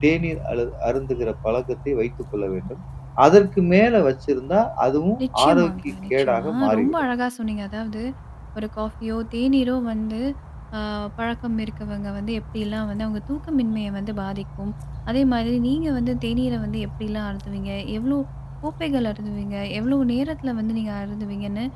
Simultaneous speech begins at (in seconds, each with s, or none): 5.2 s